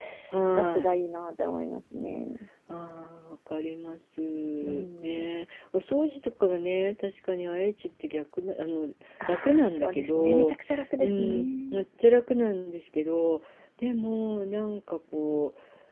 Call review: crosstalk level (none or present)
present